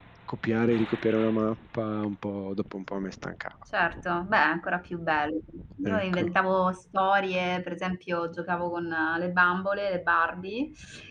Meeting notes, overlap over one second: none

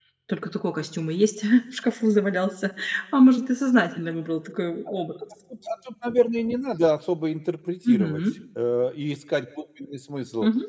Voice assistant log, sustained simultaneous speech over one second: none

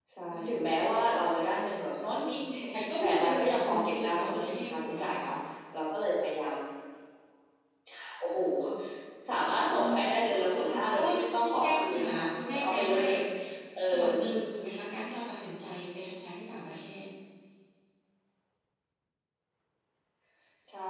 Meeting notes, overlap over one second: present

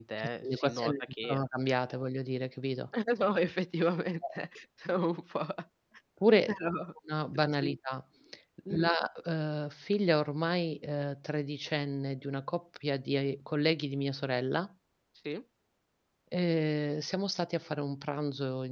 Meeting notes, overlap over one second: present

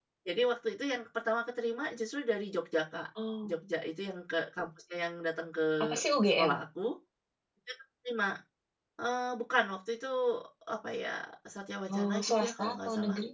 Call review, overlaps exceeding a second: present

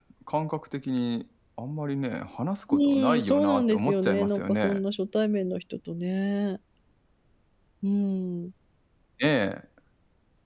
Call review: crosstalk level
present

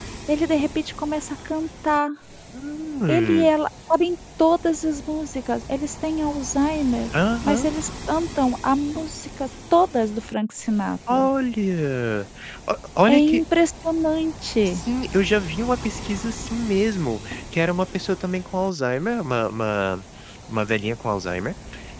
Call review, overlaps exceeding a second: none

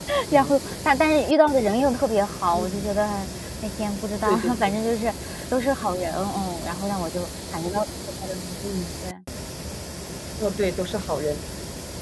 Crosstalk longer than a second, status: none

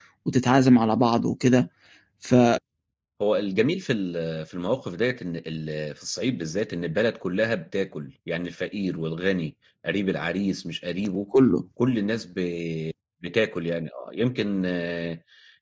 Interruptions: none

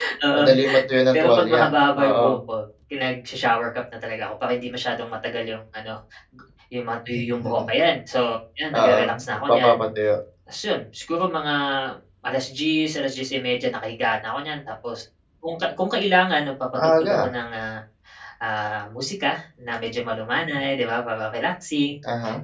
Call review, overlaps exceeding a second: present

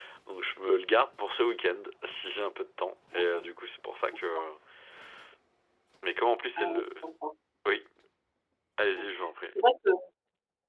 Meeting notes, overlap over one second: none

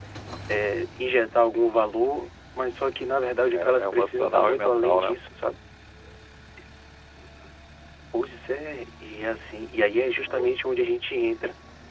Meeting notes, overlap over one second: present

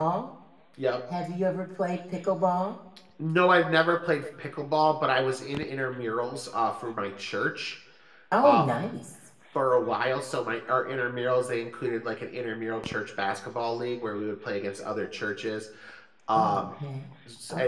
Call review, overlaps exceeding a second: none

